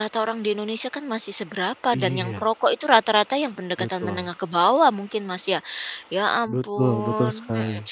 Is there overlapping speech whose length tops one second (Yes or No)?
Yes